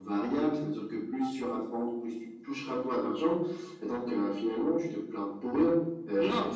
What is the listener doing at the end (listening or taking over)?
taking over